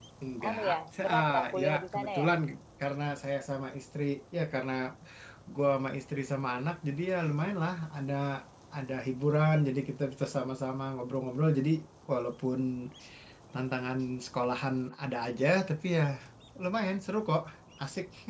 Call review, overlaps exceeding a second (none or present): present